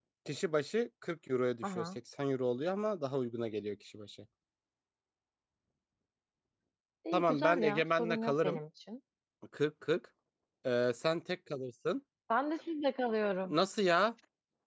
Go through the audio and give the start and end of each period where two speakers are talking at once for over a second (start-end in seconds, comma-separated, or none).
7.1-8.6